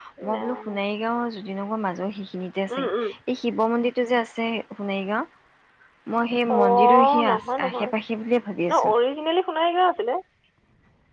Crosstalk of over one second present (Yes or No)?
Yes